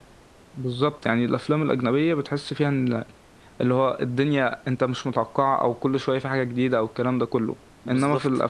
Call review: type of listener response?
listening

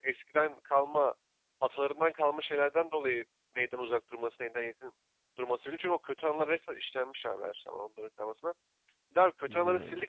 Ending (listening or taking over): listening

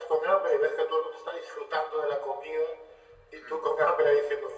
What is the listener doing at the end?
listening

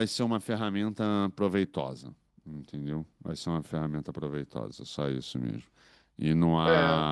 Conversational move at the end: listening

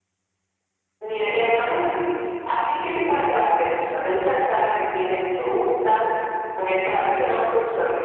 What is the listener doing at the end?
listening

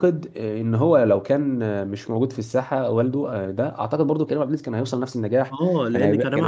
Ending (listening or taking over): taking over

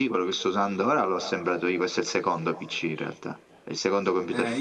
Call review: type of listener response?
taking over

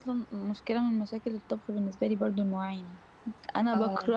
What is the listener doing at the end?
listening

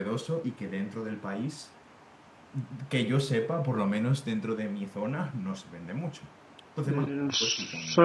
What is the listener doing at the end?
taking over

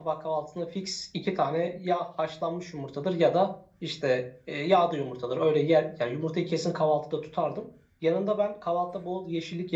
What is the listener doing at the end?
listening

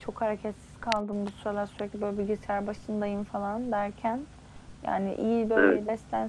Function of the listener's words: listening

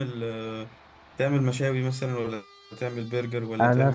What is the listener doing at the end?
taking over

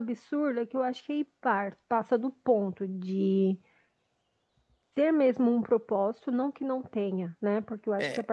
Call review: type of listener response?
listening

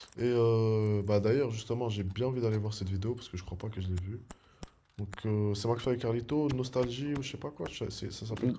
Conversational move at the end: taking over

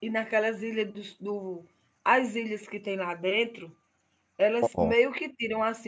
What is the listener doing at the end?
listening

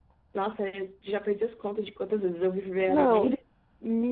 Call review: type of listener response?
taking over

